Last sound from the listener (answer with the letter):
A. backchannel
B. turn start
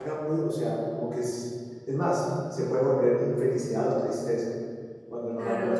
B